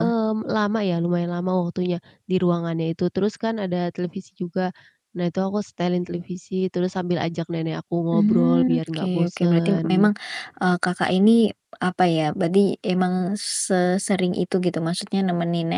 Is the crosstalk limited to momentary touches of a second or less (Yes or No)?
No